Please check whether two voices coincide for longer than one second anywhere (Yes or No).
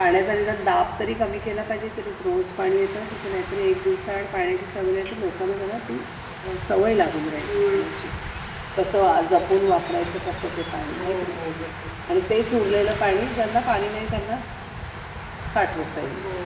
No